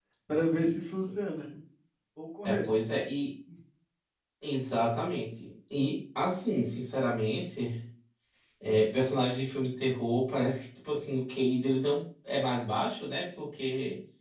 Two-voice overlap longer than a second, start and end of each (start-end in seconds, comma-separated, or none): none